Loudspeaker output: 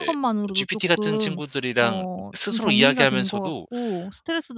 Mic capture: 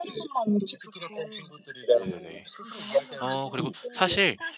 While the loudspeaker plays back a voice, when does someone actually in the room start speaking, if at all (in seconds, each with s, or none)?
2.0 s